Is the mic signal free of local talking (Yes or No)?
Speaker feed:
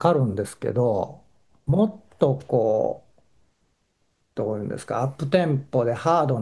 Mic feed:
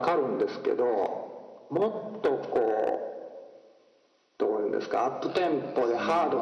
No